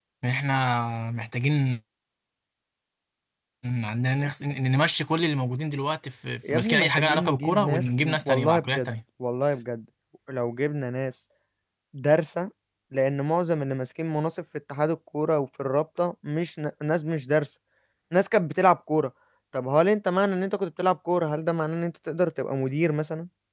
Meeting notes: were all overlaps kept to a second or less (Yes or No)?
No